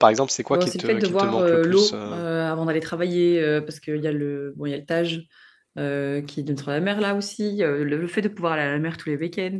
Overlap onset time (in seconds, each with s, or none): 0.5 s